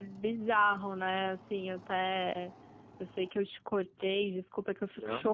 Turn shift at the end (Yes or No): No